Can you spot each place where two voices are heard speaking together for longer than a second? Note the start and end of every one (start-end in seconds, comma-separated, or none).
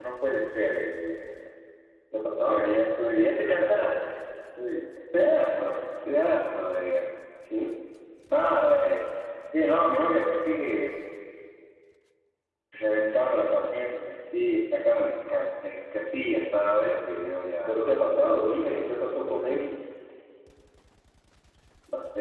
none